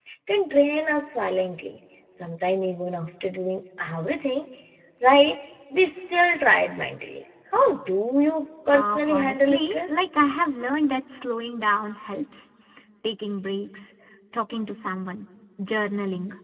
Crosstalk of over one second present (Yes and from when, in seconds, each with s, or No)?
Yes, from 8.7 s